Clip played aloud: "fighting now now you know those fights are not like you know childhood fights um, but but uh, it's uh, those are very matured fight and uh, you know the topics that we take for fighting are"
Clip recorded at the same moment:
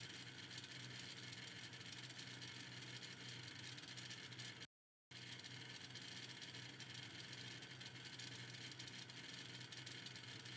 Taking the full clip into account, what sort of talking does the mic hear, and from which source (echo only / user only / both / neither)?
neither